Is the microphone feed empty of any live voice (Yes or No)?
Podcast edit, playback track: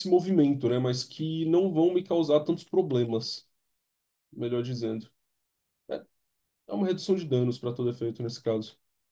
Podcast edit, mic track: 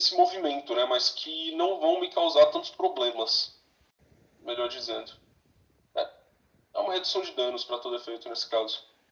Yes